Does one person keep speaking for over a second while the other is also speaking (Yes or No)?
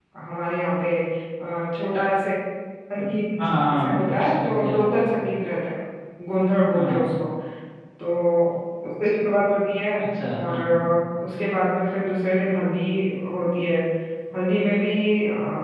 Yes